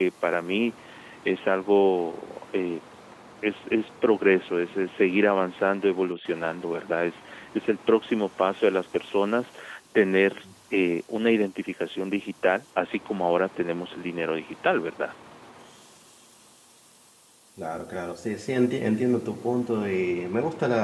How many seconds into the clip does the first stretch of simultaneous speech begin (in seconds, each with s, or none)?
none